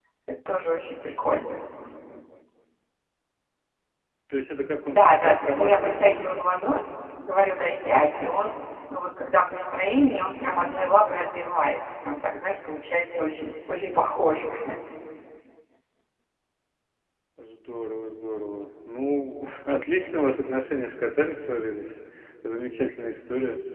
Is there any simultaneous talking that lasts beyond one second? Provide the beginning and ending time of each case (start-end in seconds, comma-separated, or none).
4.9-6.4